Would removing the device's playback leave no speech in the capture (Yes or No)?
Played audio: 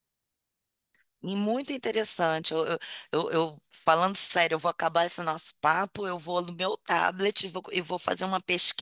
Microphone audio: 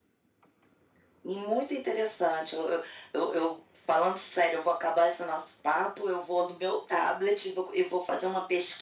Yes